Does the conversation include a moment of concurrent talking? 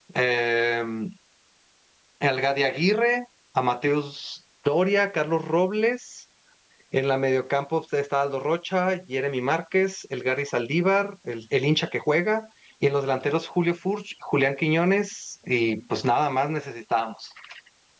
No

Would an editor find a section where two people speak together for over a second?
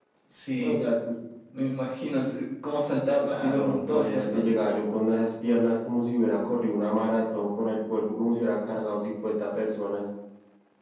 Yes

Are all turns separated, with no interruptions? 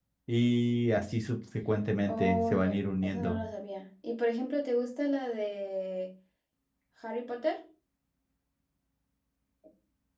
No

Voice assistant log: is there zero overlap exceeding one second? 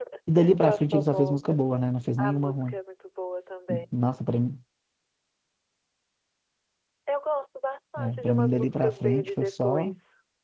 No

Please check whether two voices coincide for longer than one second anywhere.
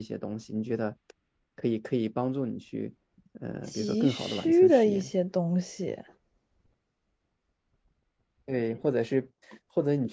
Yes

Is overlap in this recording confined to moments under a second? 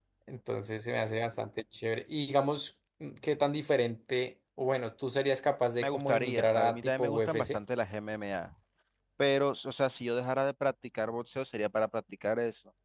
No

